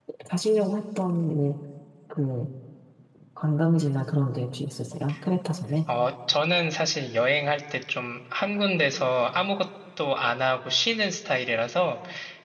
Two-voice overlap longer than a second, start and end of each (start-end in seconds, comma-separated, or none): none